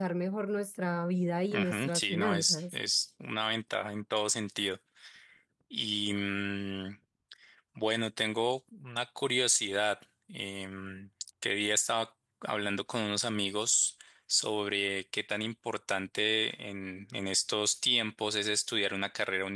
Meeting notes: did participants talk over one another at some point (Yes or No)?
Yes